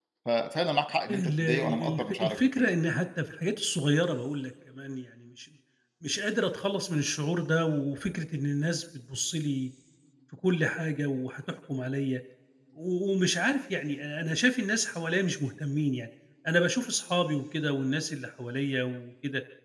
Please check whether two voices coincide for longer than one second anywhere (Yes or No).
Yes